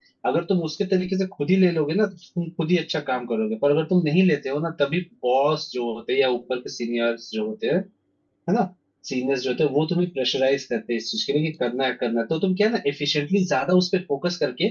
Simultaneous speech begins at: none

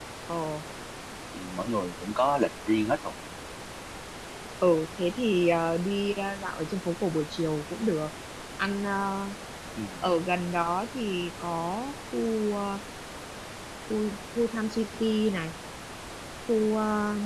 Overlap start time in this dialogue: none

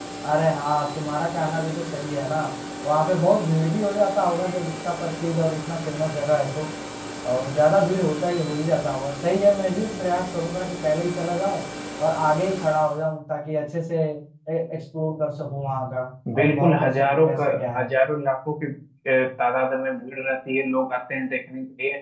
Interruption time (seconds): 16.4 s

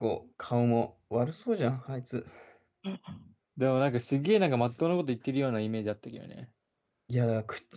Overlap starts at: none

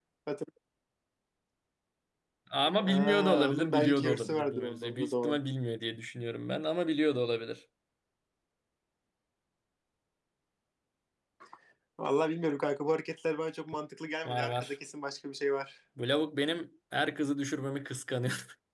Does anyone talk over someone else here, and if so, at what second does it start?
2.8 s

